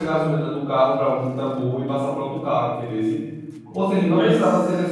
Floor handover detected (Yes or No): No